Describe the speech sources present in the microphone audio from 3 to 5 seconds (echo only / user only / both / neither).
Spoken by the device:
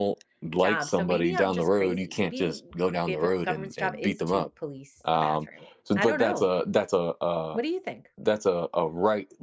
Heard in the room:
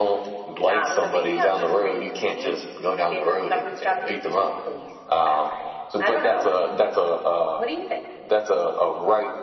echo only